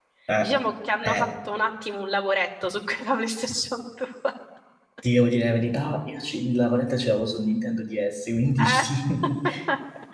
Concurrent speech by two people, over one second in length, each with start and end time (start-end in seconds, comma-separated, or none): none